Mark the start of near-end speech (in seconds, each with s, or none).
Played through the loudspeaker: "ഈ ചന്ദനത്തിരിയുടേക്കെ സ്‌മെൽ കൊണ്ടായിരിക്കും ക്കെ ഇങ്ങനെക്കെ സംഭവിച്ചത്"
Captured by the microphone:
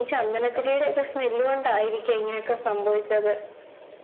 none